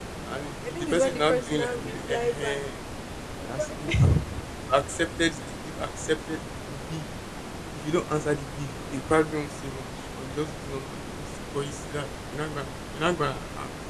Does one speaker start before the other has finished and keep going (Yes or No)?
Yes